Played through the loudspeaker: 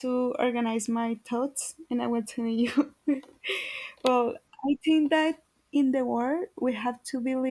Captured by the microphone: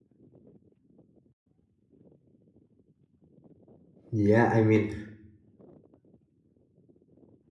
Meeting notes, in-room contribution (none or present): present